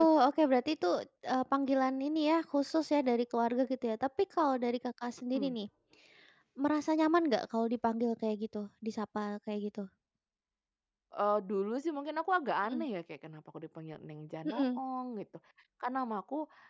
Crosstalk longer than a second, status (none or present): none